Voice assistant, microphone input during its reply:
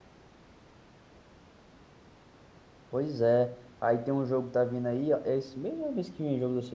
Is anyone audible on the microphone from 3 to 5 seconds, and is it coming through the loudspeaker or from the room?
user only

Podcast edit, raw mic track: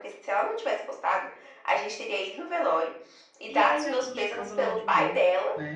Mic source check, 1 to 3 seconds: echo only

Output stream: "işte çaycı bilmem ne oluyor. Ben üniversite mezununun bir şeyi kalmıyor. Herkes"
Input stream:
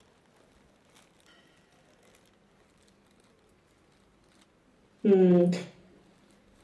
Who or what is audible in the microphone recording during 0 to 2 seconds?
neither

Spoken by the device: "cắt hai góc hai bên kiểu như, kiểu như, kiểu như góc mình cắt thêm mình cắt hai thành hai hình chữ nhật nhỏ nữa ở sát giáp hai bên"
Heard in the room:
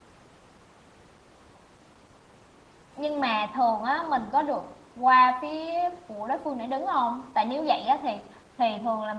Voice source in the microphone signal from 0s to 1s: neither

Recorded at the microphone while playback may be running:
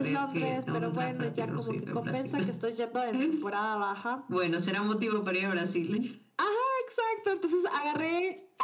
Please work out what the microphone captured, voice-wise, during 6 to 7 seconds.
echo only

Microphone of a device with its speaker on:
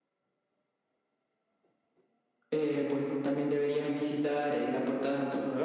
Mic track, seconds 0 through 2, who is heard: neither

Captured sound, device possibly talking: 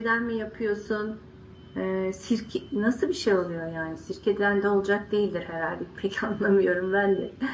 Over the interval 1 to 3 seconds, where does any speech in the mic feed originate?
user only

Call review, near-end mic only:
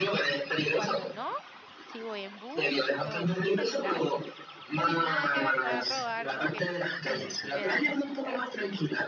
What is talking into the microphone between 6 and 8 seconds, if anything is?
both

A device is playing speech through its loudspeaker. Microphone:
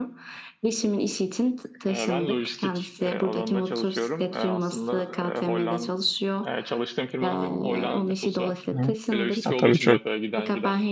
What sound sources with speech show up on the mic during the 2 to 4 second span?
echo only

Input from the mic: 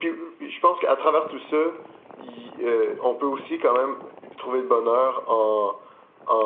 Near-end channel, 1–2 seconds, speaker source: echo only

